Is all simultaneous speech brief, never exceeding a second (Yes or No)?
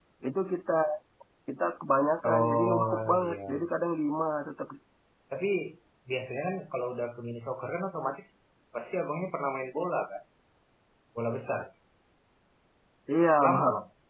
No